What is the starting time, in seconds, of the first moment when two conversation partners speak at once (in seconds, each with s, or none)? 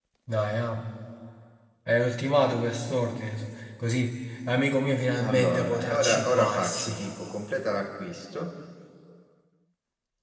5.2 s